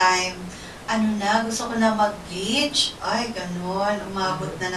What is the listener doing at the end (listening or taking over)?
listening